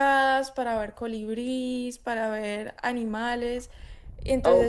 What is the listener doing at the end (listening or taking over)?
listening